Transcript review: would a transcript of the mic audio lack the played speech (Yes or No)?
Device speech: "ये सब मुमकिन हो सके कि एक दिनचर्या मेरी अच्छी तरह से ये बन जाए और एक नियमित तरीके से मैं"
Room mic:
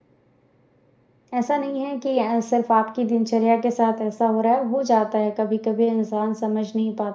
Yes